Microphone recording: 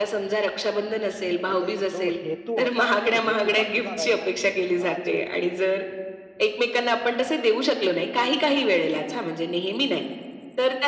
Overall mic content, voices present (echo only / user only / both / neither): both